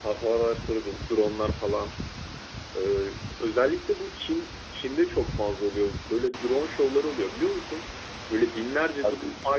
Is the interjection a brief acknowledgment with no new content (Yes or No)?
Yes